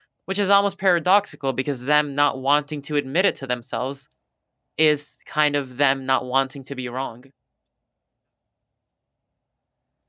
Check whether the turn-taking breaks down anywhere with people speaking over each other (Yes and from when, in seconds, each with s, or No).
No